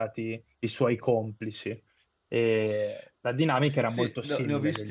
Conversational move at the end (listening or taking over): taking over